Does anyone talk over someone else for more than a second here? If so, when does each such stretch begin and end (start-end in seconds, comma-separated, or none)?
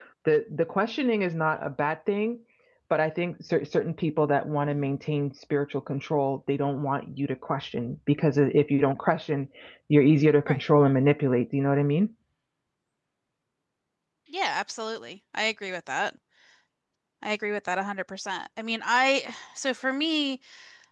none